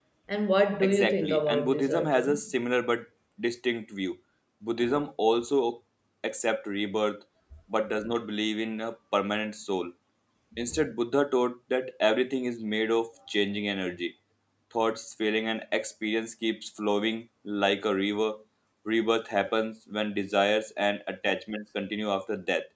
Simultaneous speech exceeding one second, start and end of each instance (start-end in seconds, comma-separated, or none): 0.8-2.5